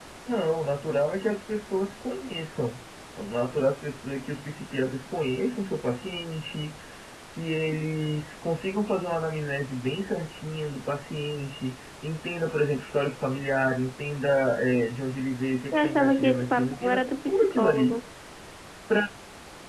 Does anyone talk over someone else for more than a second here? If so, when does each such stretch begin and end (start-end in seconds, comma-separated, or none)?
15.7-18.0